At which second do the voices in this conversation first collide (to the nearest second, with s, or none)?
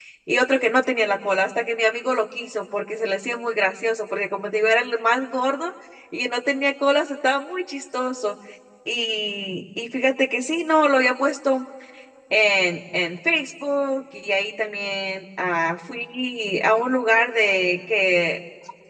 none